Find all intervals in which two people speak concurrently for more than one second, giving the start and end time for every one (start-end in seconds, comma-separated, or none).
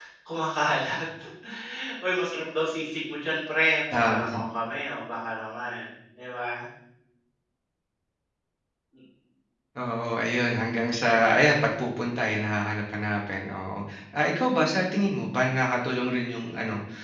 none